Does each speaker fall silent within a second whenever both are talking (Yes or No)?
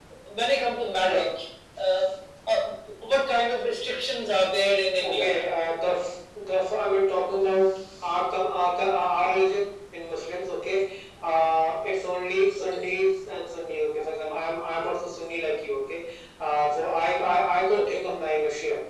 Yes